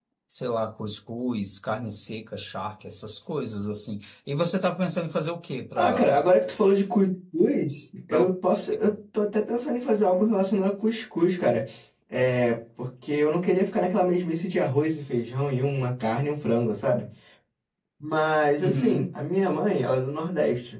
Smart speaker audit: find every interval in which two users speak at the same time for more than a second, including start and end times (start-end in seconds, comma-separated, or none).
none